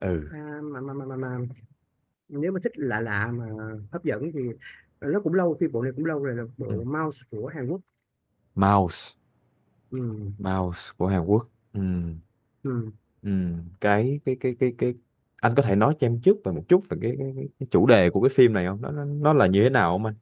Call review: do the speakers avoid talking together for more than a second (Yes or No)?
Yes